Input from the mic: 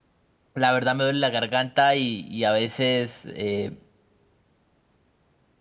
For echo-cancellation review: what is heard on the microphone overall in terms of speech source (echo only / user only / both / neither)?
user only